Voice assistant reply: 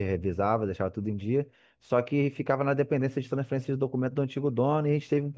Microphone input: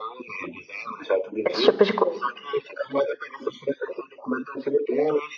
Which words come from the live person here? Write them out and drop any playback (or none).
esse tipo de coisa.